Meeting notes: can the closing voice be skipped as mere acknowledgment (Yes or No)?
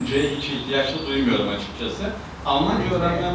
Yes